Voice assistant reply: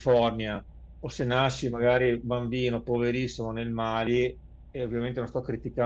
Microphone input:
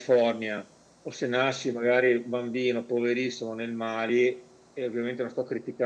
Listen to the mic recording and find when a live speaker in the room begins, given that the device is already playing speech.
none

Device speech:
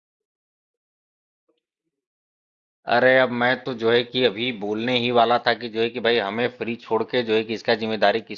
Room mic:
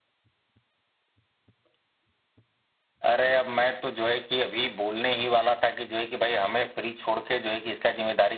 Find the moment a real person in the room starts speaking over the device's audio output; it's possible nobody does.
none

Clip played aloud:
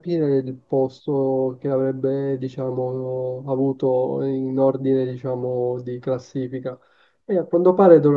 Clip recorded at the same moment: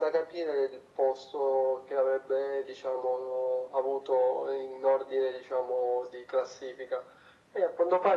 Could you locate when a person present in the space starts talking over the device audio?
none

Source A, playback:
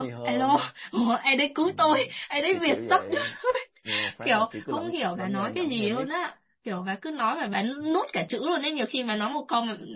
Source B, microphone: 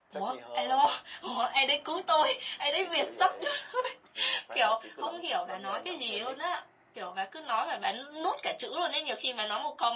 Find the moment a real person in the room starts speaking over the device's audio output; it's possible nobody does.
none

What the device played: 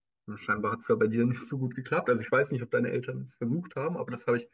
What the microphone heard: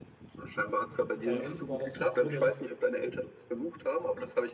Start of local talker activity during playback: 1.1 s

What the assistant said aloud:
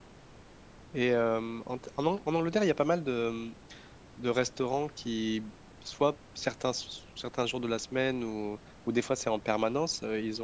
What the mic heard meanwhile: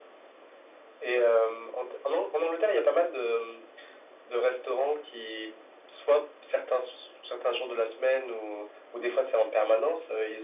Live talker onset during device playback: none

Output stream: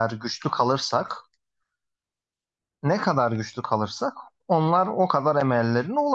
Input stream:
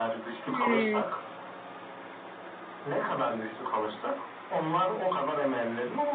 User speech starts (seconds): 0.5 s

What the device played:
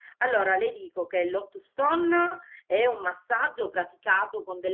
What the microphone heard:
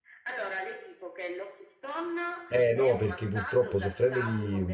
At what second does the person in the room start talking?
2.5 s

